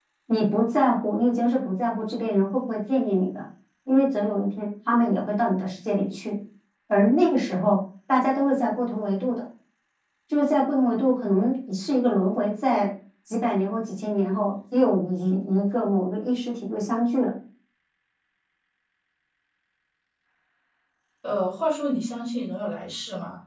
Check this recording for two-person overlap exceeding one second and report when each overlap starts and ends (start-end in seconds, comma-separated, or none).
none